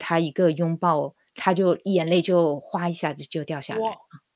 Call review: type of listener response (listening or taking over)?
taking over